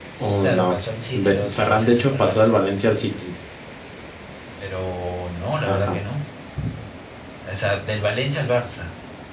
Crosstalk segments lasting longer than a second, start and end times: 1.1-2.6

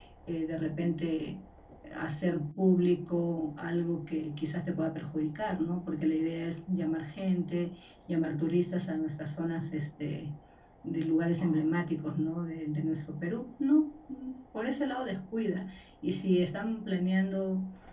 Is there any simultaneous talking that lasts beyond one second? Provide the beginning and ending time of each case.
none

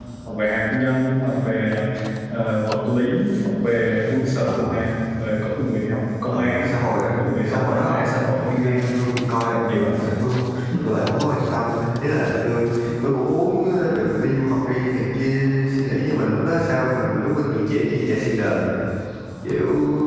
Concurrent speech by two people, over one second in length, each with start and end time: 7.2-8.8

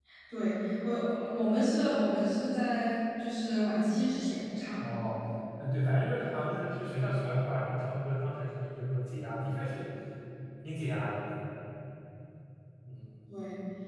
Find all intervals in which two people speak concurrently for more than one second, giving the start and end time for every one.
none

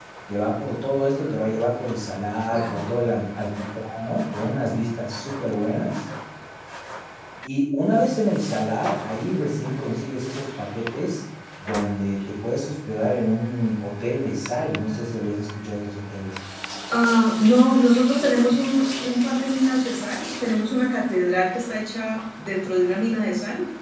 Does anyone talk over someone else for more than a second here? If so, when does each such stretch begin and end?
none

